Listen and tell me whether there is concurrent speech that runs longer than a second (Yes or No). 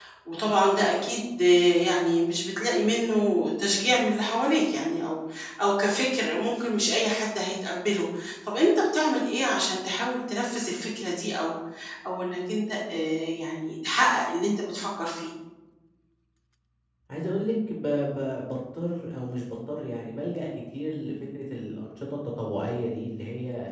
No